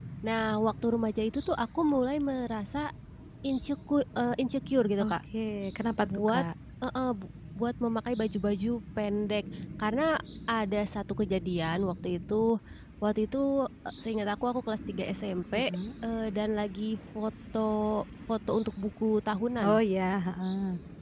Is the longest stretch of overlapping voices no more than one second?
Yes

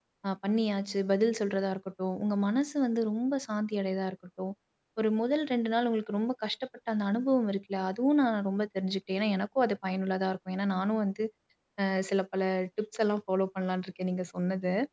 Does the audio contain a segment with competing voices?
No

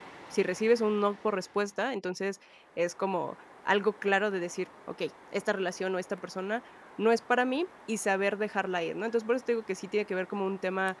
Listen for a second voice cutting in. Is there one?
No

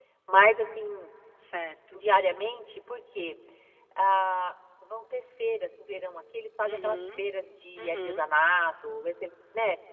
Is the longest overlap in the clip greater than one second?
No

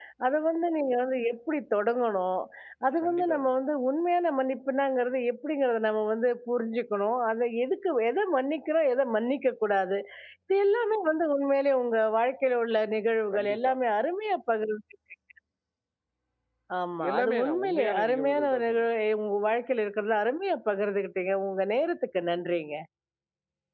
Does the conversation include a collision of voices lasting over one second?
Yes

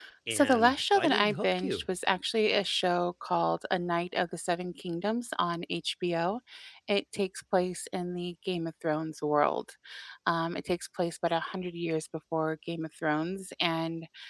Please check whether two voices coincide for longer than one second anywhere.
Yes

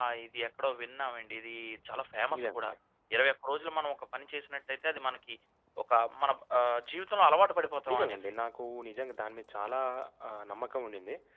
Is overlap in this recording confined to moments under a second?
Yes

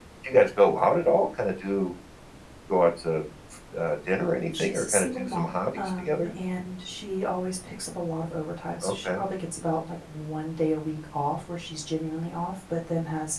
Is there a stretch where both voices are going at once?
Yes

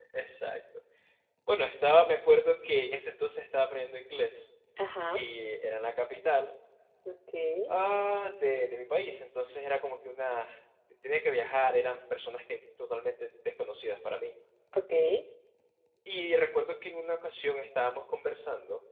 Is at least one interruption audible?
No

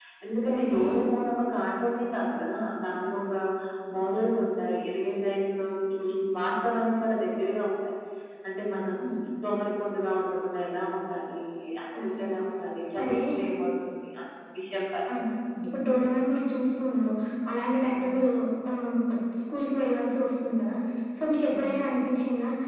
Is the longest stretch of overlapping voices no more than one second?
Yes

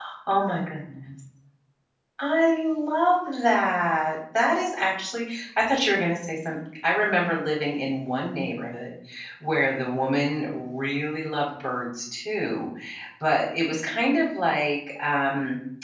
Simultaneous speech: No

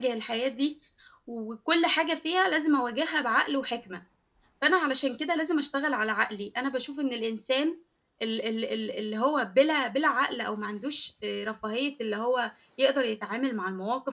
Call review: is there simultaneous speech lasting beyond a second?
No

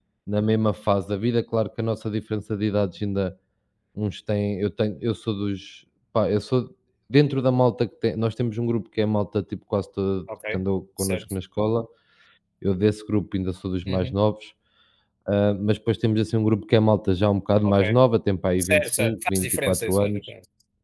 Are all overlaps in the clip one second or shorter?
No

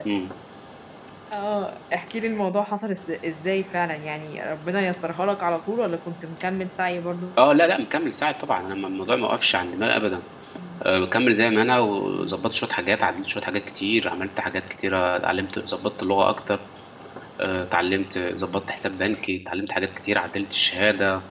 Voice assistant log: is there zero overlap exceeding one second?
Yes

